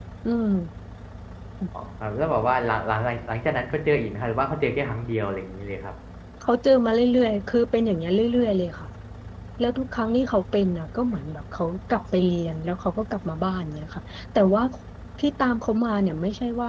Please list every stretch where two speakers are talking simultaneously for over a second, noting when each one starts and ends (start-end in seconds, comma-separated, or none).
none